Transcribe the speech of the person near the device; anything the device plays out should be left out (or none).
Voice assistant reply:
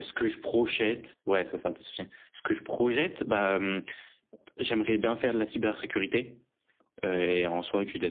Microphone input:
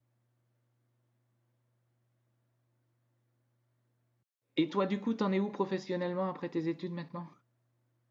Et toi, du coup, t'en es où professionnellement après tes études maintenant?